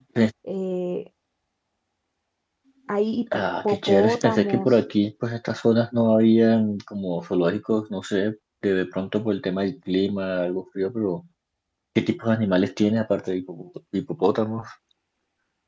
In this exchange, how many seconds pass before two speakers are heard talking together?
3.3 s

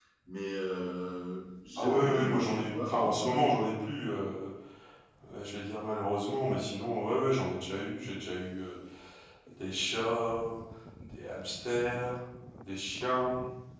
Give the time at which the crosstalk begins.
1.8 s

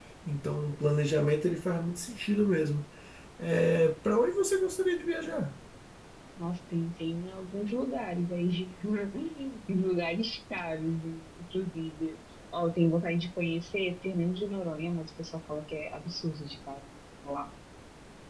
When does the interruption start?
none

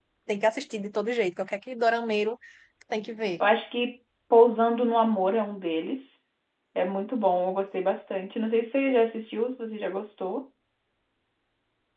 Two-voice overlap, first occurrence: none

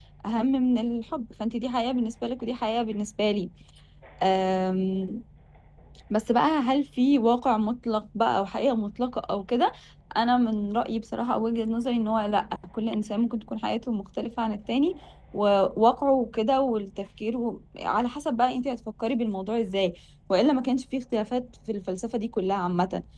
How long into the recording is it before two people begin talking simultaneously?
none

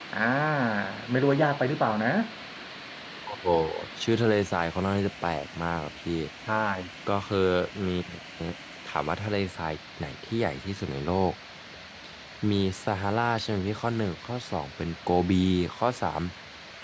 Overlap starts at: none

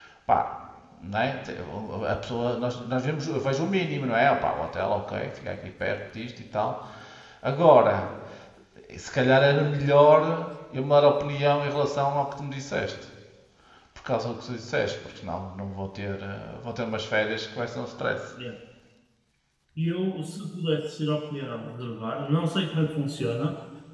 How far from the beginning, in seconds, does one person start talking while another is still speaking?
none

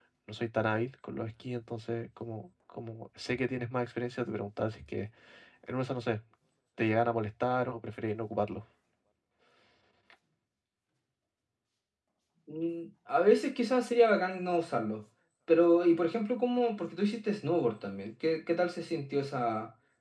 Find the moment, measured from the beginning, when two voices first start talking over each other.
none

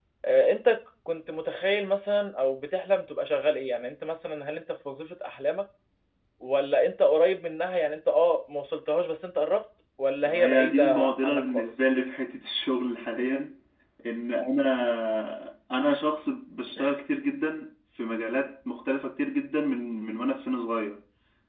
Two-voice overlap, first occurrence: 10.3 s

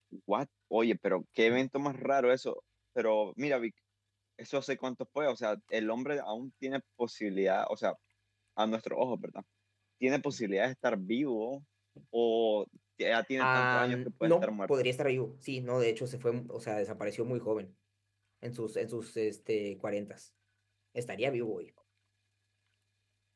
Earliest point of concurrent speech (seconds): 13.4 s

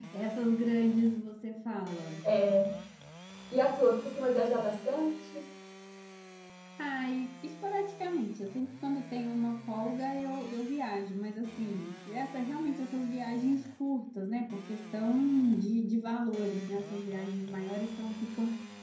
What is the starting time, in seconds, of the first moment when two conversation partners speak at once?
none

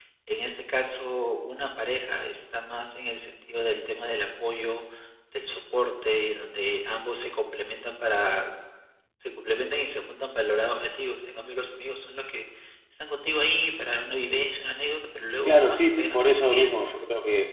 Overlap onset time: 15.5 s

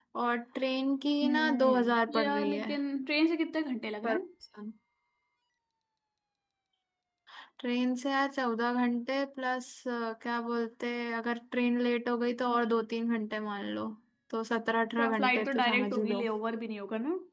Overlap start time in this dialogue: 1.2 s

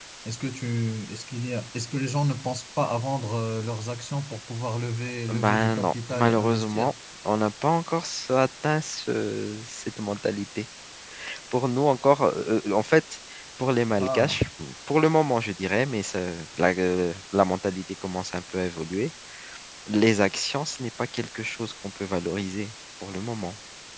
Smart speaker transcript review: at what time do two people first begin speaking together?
5.3 s

